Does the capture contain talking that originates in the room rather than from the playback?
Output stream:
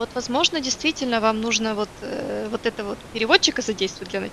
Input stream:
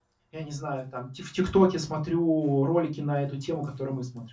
Yes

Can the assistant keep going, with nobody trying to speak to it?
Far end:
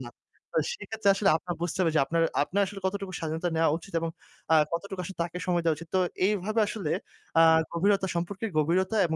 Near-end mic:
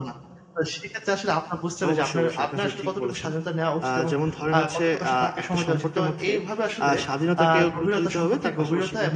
No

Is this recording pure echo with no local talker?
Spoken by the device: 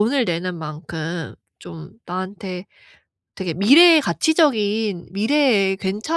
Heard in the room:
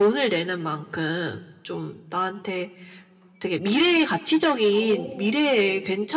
No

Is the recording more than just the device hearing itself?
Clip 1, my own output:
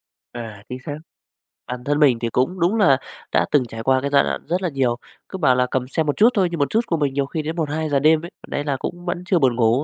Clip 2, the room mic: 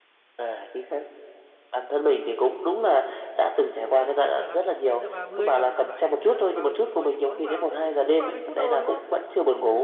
Yes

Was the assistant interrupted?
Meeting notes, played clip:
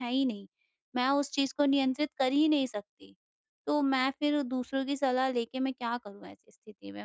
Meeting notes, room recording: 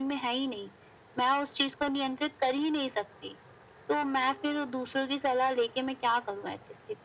No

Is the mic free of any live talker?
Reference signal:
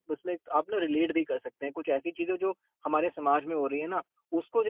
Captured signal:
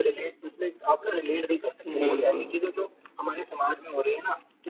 No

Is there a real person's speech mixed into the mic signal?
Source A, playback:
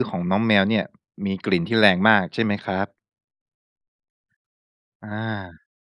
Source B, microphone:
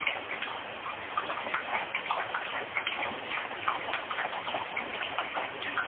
No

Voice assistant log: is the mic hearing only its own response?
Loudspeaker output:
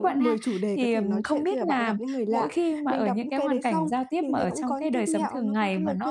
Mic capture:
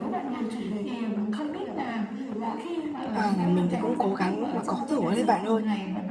No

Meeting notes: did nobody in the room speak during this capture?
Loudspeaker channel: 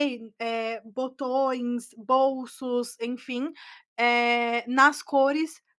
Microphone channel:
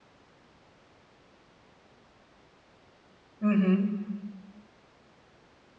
No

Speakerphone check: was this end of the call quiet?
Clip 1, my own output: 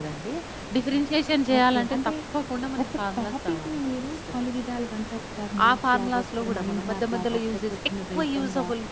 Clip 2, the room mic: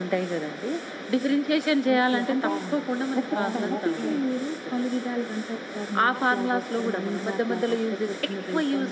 No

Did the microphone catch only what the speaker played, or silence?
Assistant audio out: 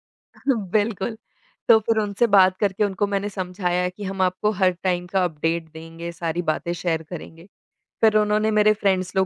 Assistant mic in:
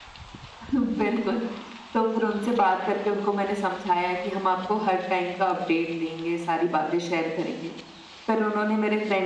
Yes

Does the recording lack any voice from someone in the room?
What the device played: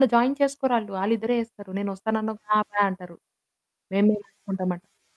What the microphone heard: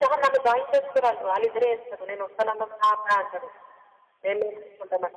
Yes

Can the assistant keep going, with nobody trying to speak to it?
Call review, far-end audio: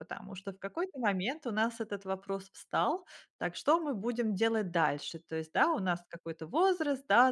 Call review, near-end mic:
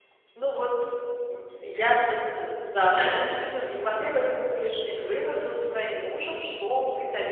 No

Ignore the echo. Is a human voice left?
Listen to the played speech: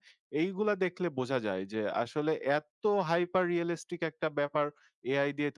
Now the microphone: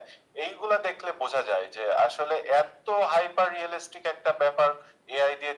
No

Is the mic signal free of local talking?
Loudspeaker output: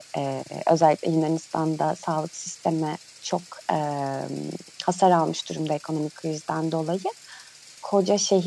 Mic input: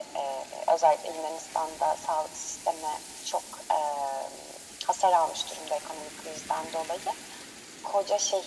Yes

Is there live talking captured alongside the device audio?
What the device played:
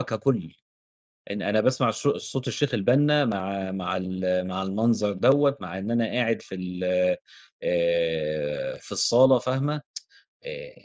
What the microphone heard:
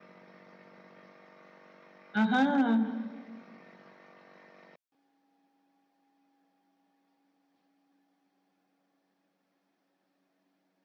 Yes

